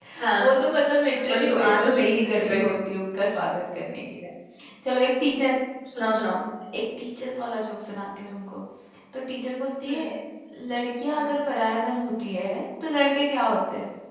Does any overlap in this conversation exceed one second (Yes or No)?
Yes